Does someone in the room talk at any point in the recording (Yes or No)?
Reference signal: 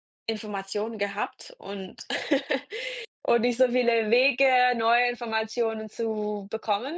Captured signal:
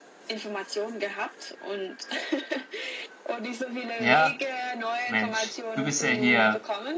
Yes